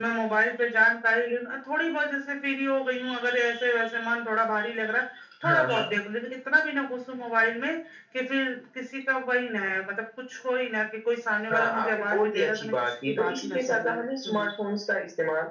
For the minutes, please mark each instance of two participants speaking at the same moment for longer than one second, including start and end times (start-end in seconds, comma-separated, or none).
11.5-14.4